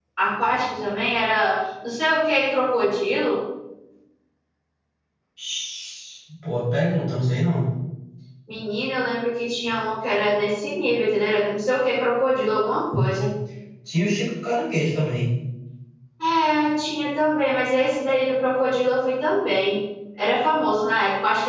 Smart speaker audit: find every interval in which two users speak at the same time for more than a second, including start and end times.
none

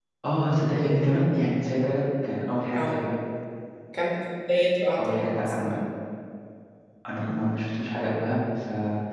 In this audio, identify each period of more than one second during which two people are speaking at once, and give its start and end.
none

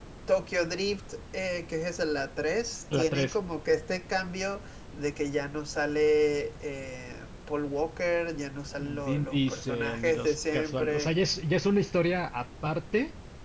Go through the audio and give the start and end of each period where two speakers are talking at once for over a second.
8.8-11.1

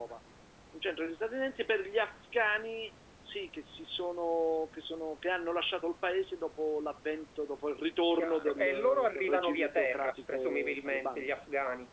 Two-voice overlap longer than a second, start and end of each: 8.1-11.2

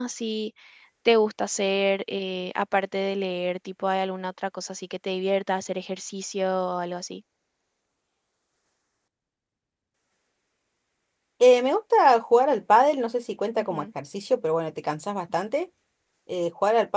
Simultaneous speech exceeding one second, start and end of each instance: none

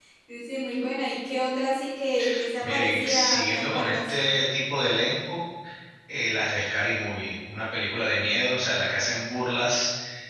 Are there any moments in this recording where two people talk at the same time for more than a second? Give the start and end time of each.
2.6-4.1

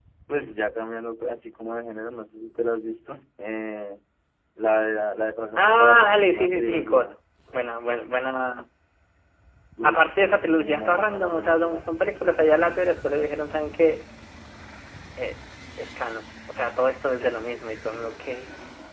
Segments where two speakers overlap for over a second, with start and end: 5.6-7.1, 9.8-11.9

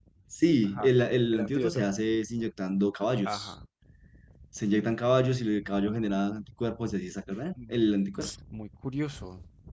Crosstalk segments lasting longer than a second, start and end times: none

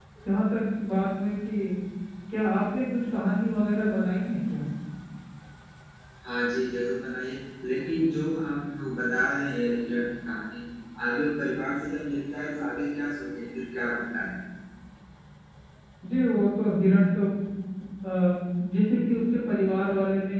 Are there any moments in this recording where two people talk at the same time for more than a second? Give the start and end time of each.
none

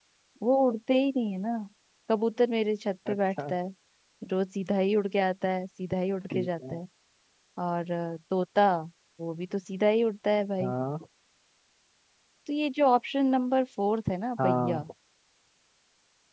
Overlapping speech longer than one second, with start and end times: none

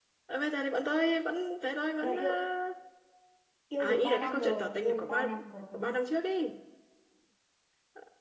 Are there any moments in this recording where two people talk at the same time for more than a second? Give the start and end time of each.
3.8-5.2

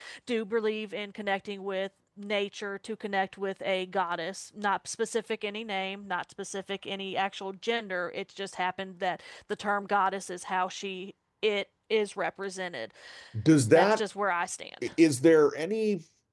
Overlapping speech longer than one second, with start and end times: none

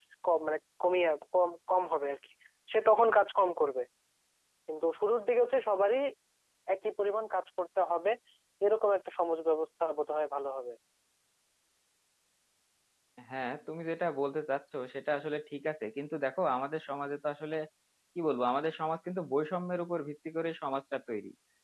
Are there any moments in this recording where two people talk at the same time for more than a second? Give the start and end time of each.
none

